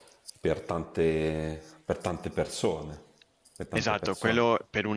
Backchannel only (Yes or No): No